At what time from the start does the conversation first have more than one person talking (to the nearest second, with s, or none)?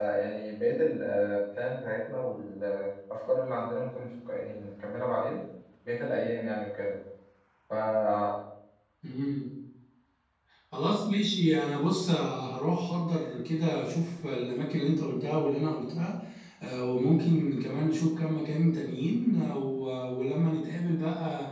none